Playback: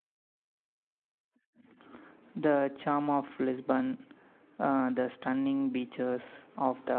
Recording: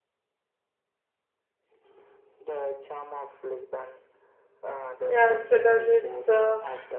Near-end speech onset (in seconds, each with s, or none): 5.1 s